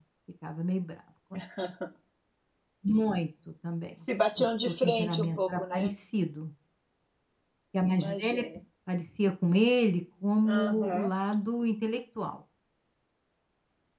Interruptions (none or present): present